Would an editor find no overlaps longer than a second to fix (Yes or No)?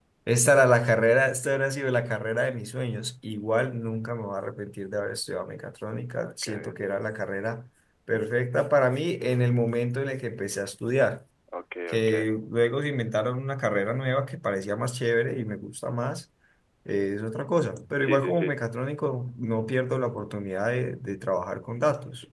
Yes